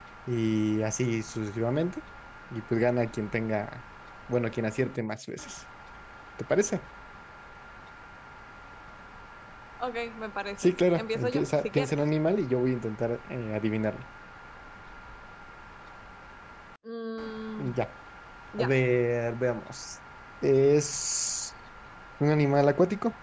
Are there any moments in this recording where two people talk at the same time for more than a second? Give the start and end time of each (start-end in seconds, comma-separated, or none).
10.6-12.0